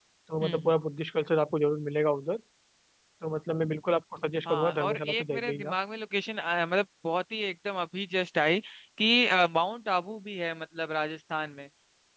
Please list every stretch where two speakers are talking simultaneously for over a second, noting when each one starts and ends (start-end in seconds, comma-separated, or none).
4.5-5.8